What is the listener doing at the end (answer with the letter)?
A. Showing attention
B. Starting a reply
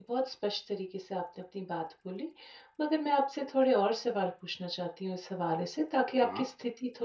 A